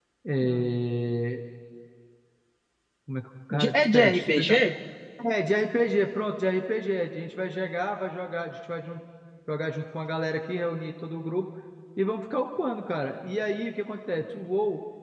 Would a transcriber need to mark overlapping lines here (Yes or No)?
Yes